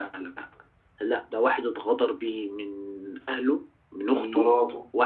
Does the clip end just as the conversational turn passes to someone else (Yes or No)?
No